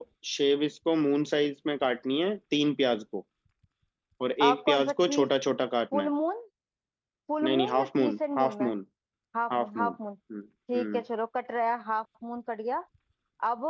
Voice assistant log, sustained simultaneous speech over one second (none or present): present